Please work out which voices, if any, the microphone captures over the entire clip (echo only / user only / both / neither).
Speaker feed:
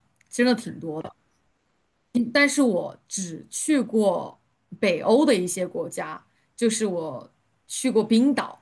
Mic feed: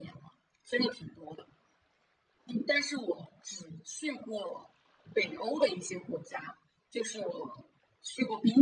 echo only